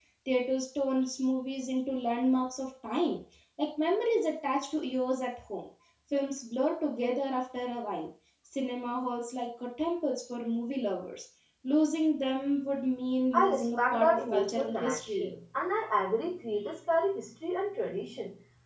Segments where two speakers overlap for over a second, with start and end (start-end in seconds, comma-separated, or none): 13.3-15.3